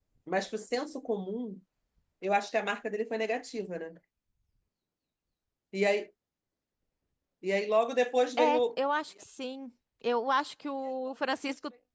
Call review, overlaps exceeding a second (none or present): none